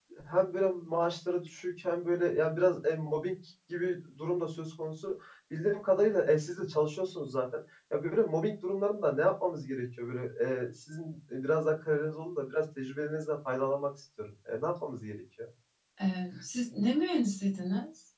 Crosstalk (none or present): none